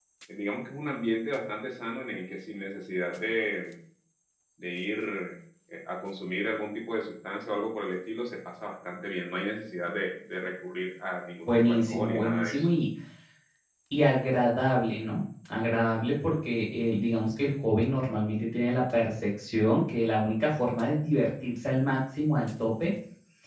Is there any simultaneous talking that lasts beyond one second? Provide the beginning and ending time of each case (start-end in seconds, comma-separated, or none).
11.5-12.7